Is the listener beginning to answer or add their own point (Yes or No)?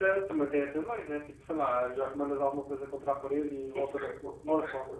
Yes